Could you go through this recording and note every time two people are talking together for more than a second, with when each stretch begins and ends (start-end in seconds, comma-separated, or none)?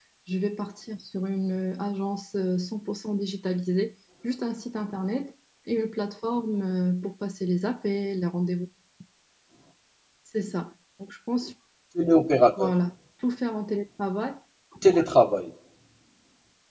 none